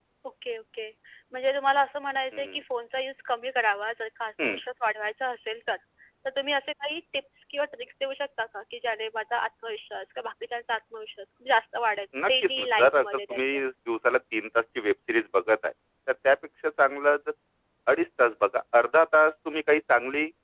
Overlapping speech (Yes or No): Yes